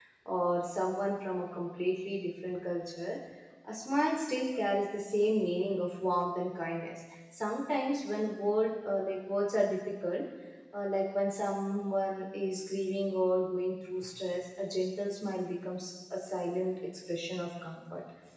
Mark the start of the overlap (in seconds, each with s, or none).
none